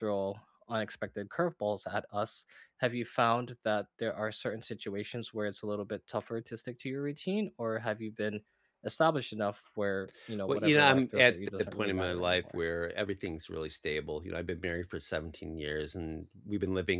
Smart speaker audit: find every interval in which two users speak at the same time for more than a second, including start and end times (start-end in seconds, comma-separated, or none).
10.5-12.6